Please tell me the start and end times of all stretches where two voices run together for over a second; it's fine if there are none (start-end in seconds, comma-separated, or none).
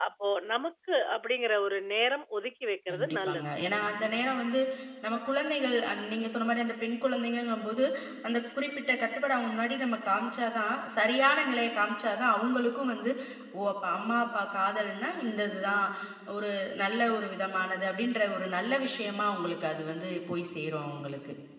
none